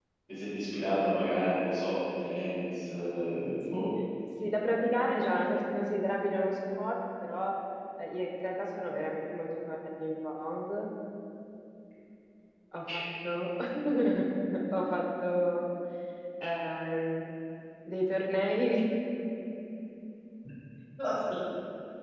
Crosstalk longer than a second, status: none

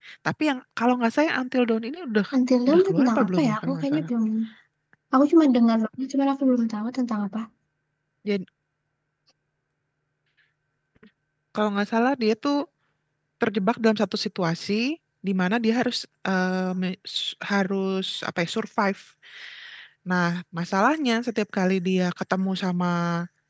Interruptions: present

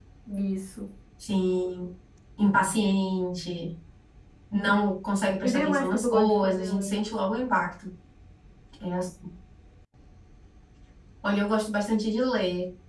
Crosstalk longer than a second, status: present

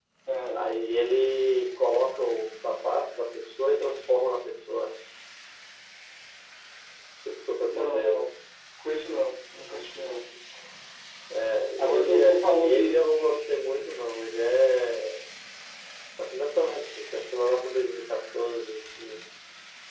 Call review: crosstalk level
present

